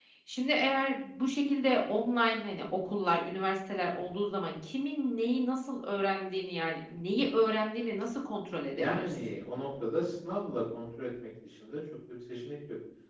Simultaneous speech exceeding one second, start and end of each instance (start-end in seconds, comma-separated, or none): none